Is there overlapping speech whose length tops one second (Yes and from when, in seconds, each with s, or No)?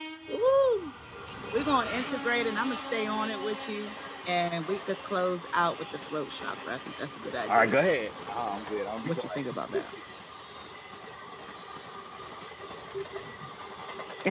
No